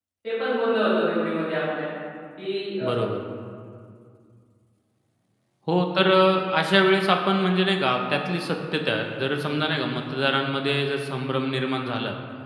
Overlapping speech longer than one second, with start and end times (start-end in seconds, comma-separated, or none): none